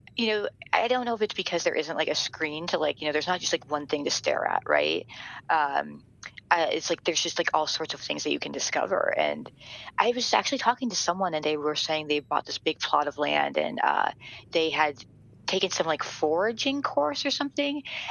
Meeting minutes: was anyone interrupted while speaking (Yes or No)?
No